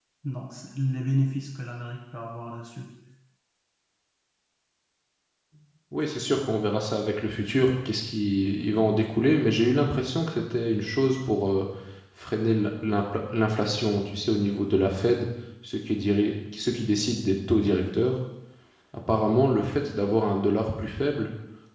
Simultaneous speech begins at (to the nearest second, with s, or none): none